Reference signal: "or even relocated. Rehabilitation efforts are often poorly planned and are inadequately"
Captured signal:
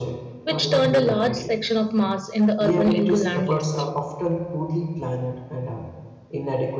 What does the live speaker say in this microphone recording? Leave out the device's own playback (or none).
which turned a large section of mass in the urban into landless.